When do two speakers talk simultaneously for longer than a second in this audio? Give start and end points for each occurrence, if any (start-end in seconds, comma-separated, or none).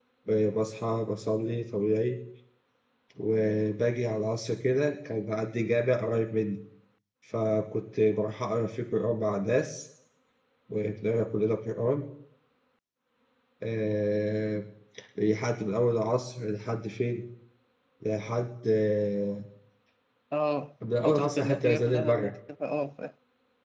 21.0-22.3